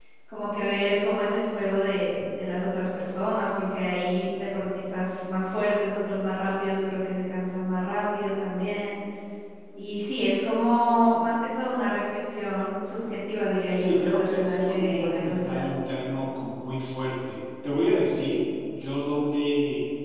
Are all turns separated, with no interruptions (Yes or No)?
No